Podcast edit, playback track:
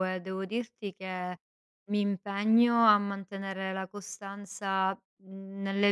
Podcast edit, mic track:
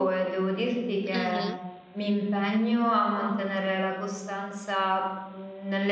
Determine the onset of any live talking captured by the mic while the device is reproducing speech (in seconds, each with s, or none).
1.1 s